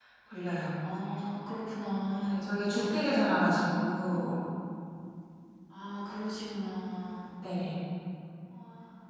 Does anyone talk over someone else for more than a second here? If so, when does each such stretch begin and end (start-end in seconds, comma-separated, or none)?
none